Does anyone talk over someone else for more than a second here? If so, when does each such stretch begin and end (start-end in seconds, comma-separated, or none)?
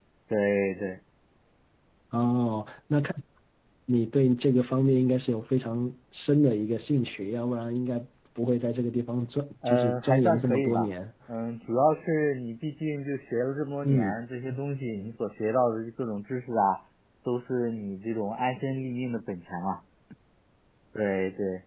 9.7-10.9